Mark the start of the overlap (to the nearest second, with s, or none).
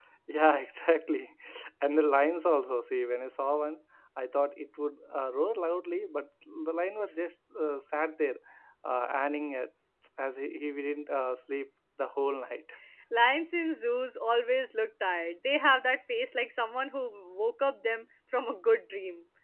none